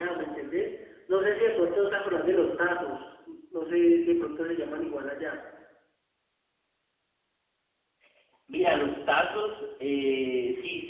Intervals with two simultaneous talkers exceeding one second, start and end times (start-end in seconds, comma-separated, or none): none